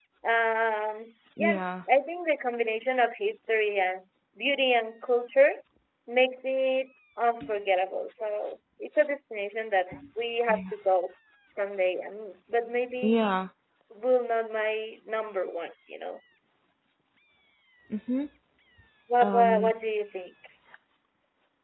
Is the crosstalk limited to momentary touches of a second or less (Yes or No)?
Yes